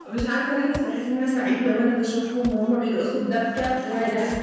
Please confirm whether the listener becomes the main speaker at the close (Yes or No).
No